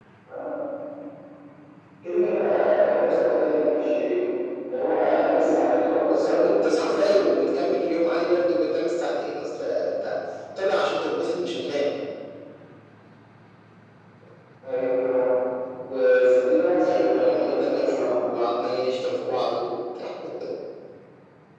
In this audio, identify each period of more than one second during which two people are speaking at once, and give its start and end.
6.0-7.4, 16.8-18.1

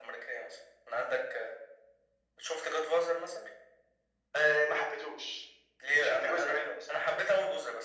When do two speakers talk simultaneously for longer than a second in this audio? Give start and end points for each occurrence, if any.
5.8-7.2

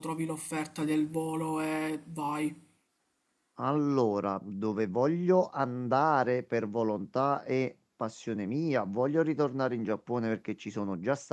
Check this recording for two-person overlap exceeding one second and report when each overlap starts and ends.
none

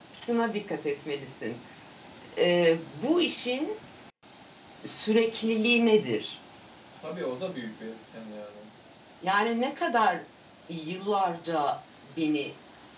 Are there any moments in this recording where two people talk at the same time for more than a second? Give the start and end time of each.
none

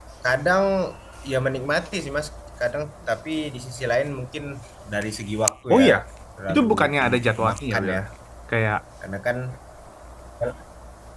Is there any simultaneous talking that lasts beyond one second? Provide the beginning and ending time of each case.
6.5-8.0

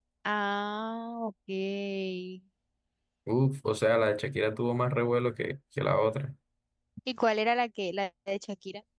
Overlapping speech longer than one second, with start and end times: none

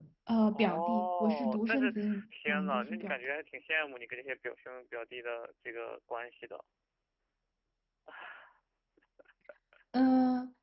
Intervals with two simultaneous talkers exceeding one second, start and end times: 0.5-3.1

